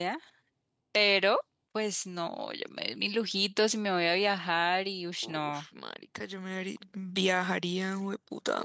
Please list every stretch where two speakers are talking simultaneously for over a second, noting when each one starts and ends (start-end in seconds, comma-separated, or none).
none